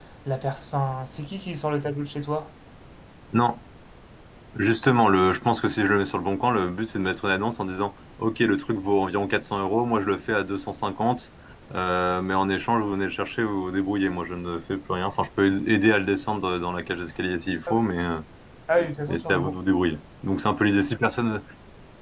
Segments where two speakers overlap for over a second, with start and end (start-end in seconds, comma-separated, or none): none